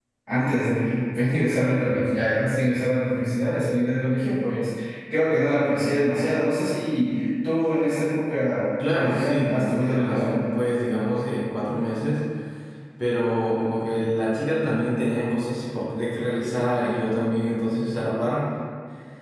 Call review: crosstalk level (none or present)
present